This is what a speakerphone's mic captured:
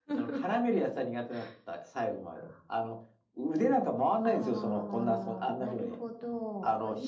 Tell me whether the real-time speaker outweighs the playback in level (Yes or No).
No